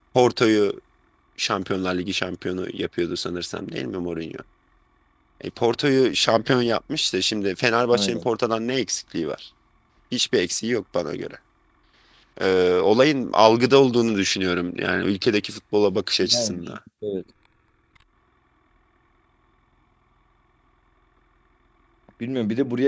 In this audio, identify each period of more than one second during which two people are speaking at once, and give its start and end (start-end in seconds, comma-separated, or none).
none